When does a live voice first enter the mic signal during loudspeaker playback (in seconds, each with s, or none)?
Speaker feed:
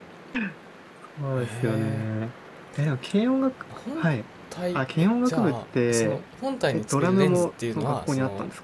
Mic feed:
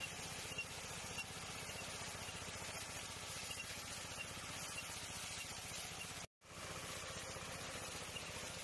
none